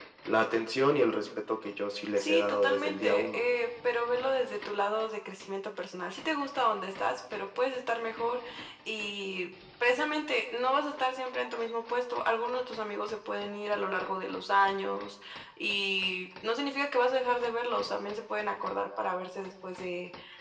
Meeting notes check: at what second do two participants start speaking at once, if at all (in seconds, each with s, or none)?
2.2 s